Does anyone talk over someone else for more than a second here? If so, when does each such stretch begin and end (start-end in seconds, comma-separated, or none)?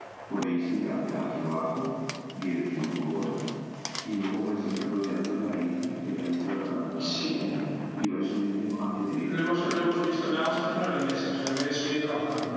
9.2-10.8